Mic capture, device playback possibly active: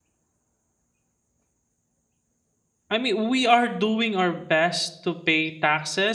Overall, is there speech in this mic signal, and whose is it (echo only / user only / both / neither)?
user only